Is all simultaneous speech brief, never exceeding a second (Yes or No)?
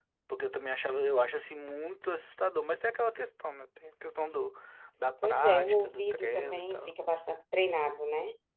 No